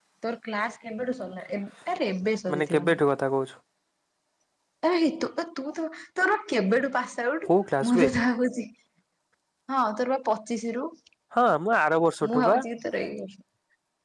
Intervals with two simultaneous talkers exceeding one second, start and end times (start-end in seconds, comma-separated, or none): none